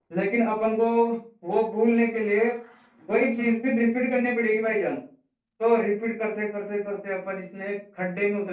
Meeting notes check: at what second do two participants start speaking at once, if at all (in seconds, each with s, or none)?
none